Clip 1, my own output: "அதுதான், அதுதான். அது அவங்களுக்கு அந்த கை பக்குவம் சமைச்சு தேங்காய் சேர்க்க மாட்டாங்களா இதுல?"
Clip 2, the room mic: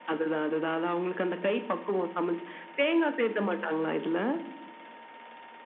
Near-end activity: none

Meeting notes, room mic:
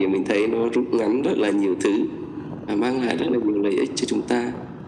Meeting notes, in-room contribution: none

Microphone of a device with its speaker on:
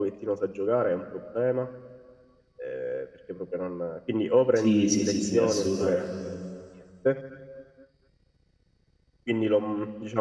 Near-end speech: present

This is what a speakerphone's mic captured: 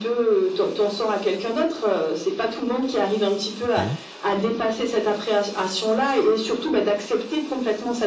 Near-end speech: present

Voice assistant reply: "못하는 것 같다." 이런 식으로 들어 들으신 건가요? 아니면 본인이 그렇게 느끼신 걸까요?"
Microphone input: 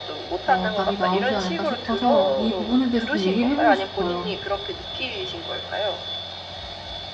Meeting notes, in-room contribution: present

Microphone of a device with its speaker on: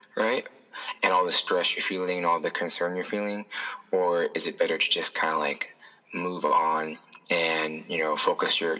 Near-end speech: none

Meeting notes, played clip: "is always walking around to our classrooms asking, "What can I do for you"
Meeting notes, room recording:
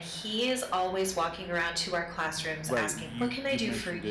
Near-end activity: present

